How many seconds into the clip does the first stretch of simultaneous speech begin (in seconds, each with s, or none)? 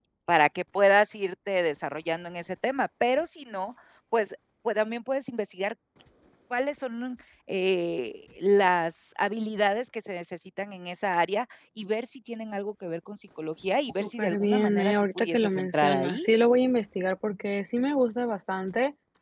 13.9 s